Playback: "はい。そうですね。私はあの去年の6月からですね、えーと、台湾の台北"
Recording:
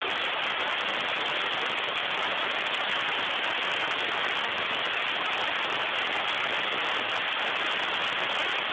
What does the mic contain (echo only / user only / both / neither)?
neither